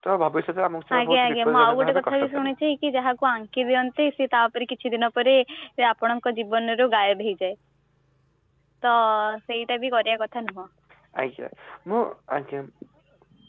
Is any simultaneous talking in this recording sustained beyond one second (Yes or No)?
Yes